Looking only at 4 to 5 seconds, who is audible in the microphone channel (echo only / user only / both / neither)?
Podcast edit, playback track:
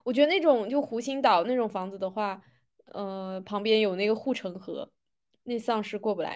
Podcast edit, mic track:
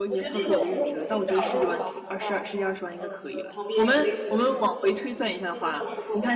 both